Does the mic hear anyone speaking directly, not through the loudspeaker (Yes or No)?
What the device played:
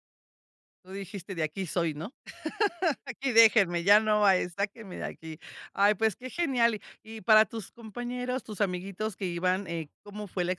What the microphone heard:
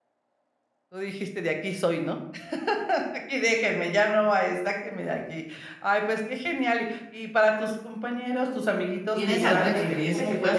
Yes